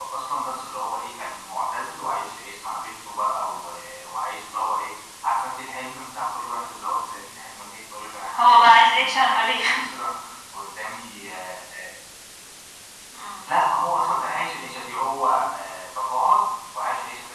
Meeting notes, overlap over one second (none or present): present